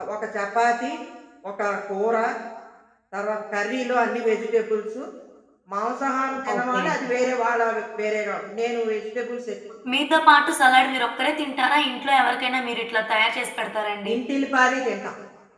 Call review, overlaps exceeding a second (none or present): none